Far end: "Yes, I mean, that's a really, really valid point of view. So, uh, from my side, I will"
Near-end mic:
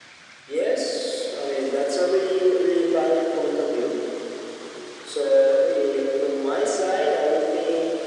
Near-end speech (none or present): none